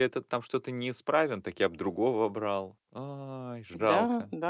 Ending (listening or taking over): taking over